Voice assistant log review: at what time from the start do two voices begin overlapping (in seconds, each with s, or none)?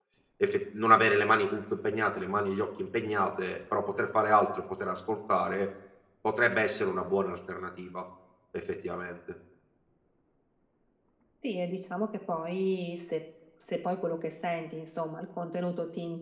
none